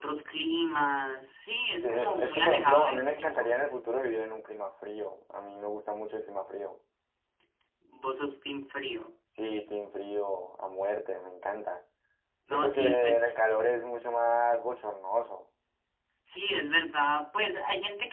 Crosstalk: present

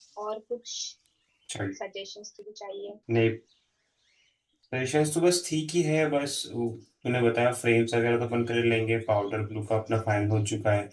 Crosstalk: none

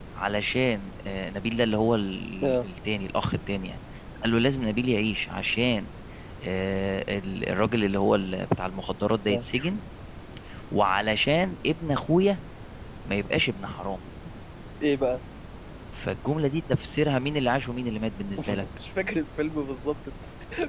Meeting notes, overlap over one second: none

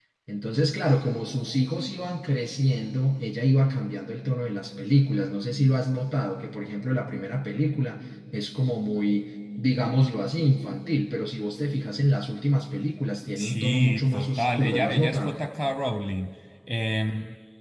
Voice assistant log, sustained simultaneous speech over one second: present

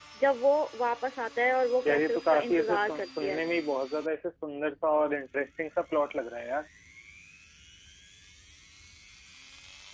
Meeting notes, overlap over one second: present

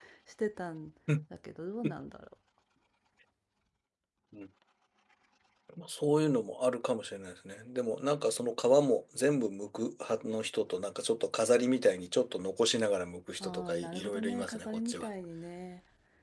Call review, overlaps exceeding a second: present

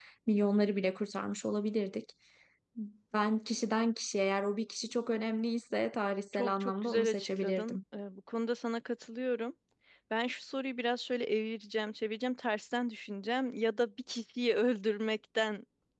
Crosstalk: present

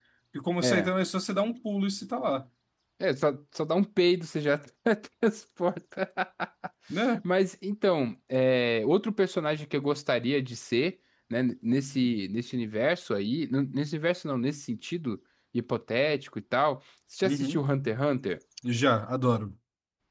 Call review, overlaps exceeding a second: none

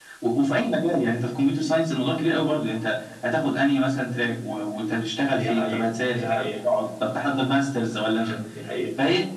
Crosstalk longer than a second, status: present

